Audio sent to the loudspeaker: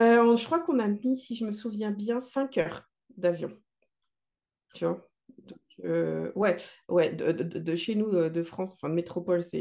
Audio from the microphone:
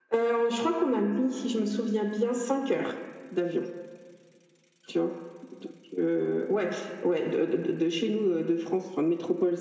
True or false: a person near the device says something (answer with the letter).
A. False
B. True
A